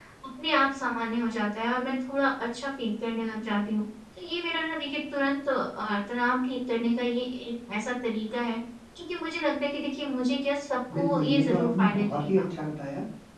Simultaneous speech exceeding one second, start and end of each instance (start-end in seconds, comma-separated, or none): 10.9-12.4